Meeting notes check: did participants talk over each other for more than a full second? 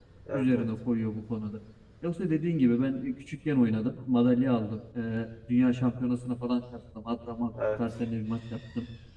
No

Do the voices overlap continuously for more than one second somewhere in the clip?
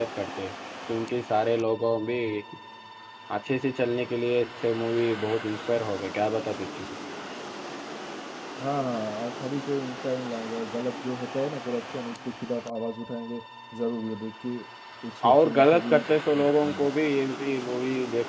Yes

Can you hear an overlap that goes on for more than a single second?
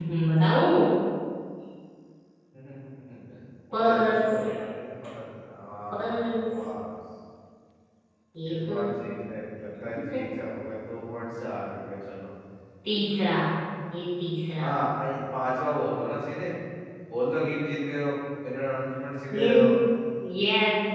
Yes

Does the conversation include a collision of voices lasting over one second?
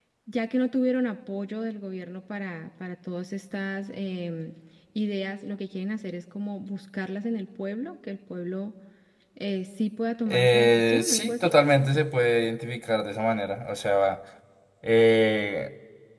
Yes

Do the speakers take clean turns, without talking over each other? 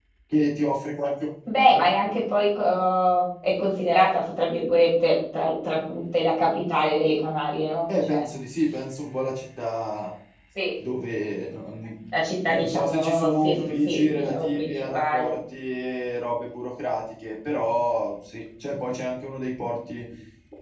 No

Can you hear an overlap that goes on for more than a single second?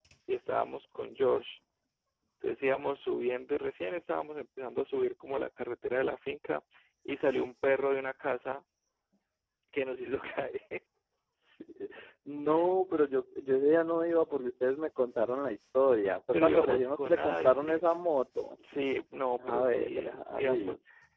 Yes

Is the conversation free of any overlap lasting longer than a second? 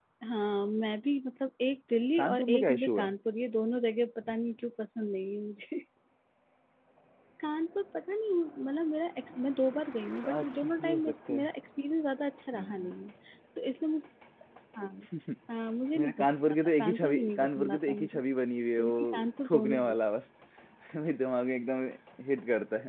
No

